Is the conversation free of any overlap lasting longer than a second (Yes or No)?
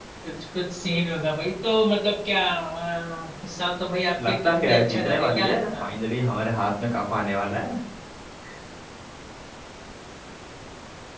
No